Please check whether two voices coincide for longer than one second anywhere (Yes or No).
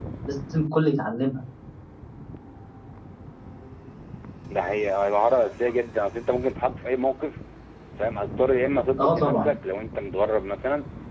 No